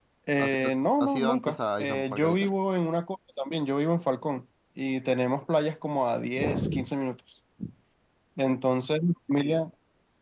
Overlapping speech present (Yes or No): Yes